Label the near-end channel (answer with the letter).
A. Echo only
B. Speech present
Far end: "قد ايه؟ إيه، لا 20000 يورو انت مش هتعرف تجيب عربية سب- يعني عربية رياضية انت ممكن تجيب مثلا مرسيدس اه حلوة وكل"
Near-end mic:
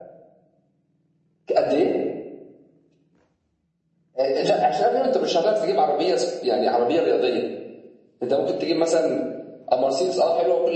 A